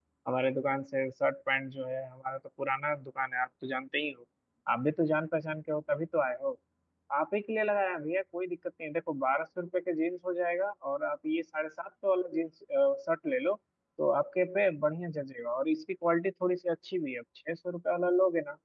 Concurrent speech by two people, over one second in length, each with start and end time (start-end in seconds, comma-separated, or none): none